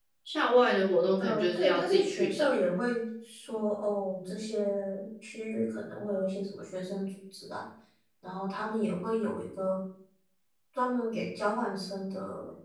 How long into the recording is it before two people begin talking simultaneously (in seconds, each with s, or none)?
1.2 s